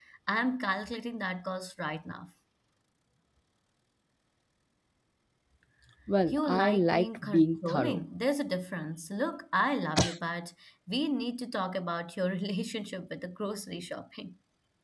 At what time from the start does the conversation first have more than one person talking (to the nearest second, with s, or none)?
6 s